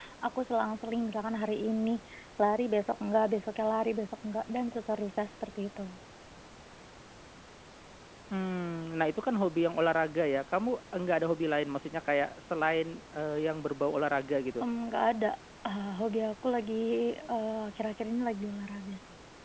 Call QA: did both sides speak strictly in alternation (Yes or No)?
Yes